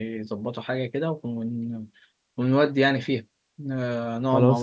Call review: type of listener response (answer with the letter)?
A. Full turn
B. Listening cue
A